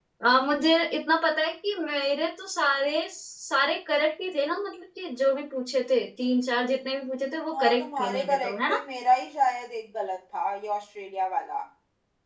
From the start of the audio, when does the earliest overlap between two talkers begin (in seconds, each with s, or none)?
7.5 s